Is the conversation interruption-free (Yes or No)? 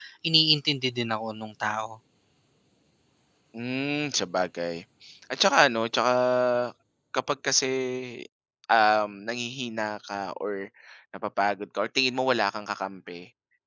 Yes